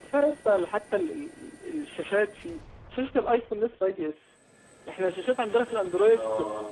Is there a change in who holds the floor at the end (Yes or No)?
No